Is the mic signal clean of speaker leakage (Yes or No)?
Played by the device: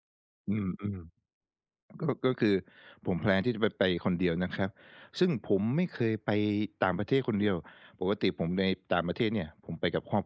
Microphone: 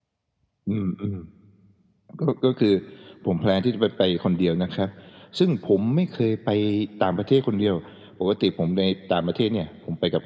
No